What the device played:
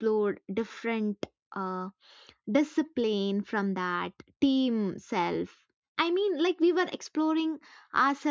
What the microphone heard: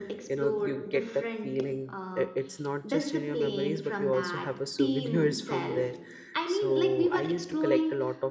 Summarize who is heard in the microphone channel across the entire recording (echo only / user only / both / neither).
both